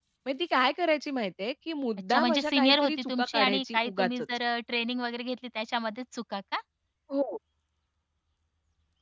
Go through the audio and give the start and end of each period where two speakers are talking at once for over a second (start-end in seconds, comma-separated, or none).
2.1-4.3